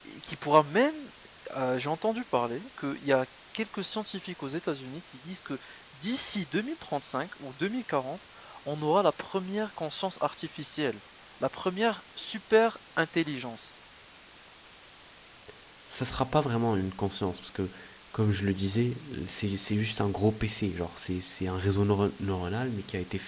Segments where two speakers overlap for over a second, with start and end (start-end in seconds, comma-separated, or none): none